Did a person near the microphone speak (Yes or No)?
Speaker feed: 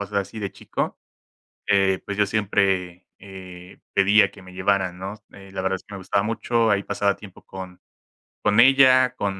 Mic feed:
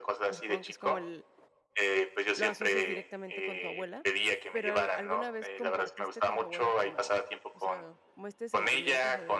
Yes